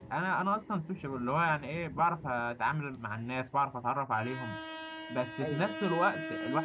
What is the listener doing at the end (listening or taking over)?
listening